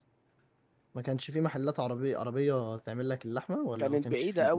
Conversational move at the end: taking over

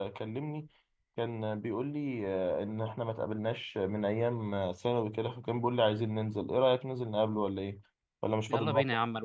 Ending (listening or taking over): taking over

